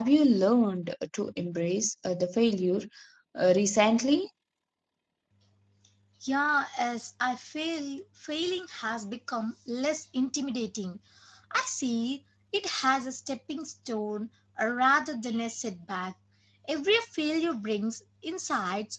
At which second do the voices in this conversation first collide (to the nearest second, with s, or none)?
none